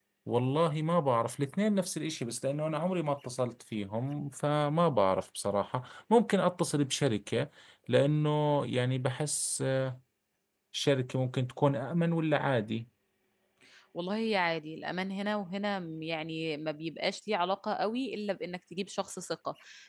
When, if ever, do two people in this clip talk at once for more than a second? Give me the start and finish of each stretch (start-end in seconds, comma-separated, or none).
none